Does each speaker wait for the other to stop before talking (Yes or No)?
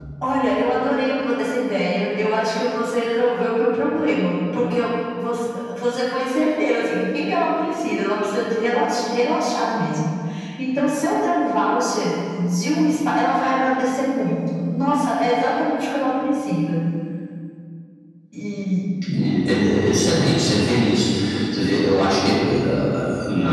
Yes